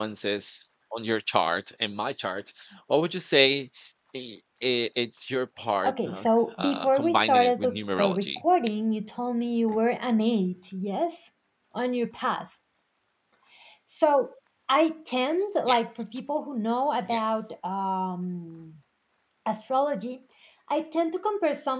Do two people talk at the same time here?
Yes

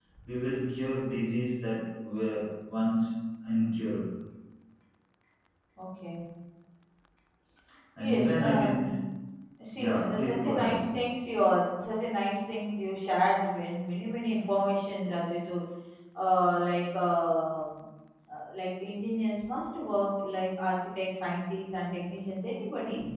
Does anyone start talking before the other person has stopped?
Yes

